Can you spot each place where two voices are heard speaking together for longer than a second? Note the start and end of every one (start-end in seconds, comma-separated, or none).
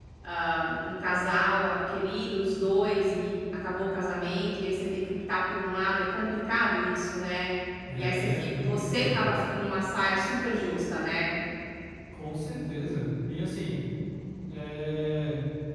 7.9-9.2